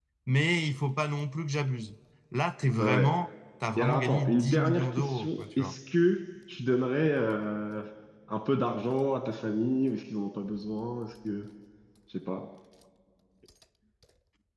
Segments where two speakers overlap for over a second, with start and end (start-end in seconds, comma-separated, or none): 3.8-5.7